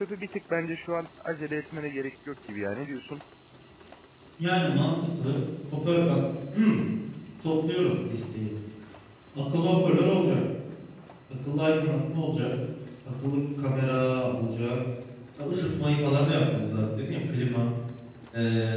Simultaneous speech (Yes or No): No